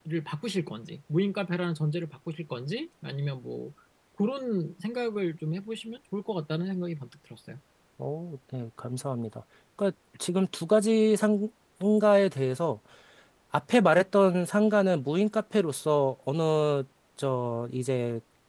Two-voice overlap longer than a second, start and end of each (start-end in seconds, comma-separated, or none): none